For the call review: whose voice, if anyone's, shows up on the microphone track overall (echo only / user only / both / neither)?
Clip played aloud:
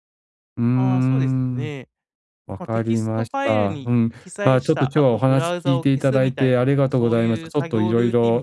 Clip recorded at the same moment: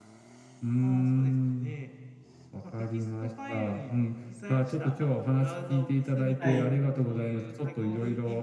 both